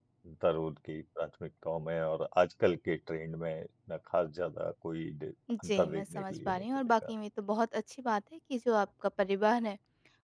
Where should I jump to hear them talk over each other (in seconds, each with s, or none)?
5.5 s